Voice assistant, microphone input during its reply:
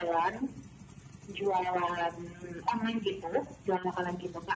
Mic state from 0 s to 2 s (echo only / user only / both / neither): echo only